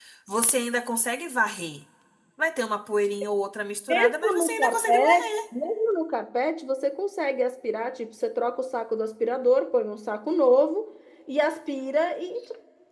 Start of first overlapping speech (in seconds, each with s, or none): 3.9 s